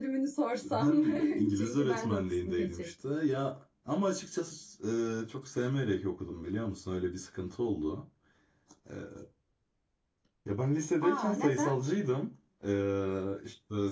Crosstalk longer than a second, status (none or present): present